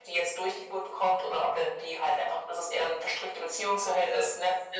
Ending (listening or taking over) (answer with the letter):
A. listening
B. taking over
A